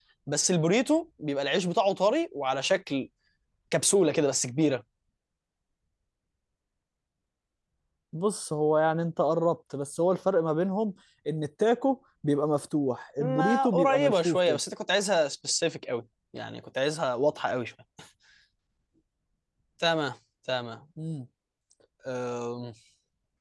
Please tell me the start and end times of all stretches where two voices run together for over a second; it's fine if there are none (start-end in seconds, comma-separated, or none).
13.2-14.6